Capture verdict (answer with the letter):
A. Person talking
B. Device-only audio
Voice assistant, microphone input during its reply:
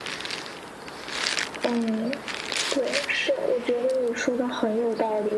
B